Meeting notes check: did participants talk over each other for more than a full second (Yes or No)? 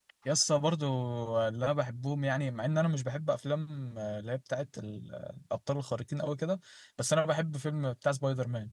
No